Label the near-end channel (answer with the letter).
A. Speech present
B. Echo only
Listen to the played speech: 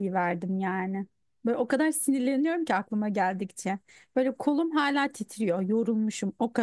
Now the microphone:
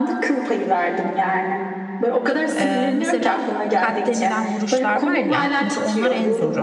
A